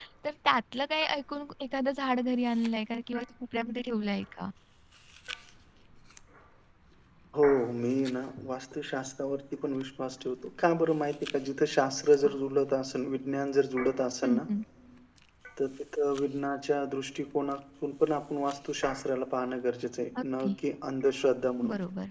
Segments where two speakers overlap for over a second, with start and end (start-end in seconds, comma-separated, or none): none